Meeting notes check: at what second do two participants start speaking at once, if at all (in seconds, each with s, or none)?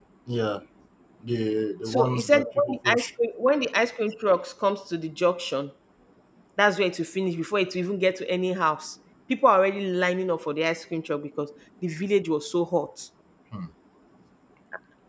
1.9 s